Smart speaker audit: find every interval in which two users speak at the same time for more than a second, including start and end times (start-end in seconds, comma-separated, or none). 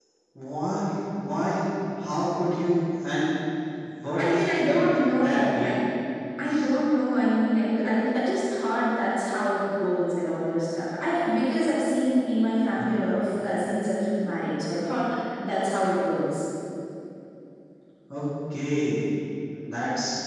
4.2-5.7